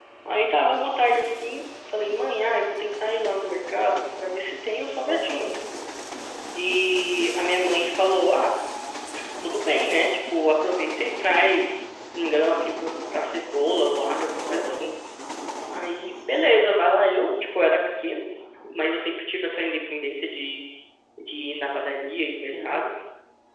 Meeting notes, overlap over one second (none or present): none